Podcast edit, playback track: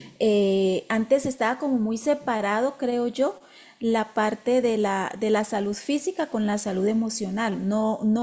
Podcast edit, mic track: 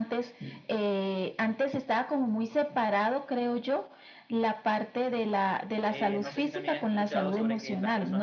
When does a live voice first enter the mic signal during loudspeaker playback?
5.9 s

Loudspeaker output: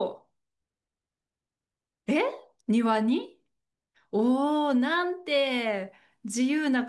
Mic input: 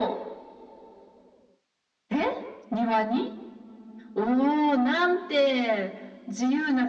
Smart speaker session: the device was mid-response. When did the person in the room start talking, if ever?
none

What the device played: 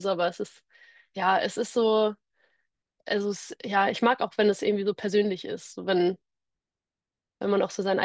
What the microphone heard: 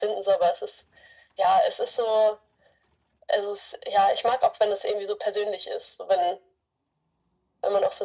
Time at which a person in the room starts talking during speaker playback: none

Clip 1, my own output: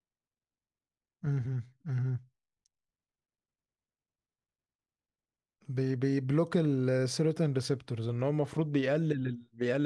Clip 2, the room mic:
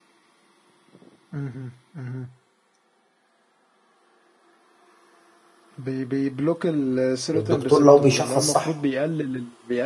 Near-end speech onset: 7.3 s

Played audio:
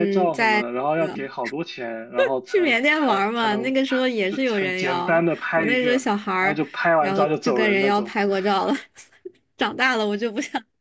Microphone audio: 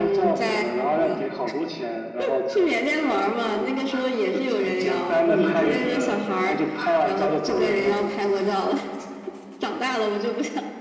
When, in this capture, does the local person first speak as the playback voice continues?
5.2 s

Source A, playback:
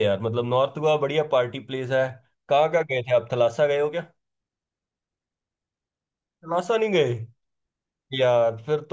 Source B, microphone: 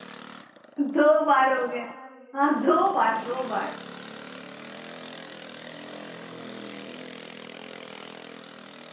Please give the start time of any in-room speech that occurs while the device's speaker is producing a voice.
0.8 s

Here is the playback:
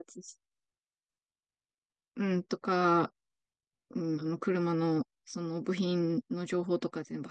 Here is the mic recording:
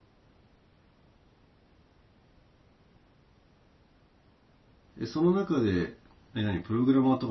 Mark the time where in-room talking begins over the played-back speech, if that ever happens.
5.0 s

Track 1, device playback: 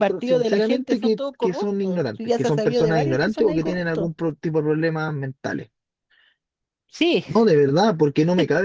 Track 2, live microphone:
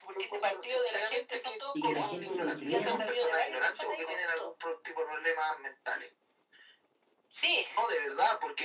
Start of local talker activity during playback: 1.7 s

